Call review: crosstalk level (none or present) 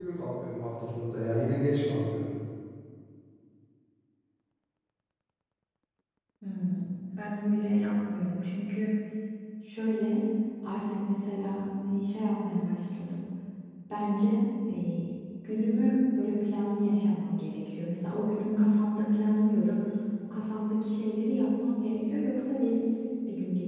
none